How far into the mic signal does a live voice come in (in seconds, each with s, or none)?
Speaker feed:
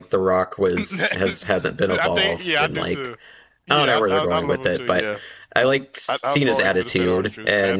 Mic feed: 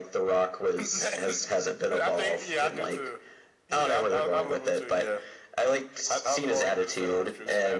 none